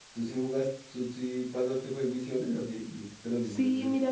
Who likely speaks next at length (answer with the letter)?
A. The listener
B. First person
A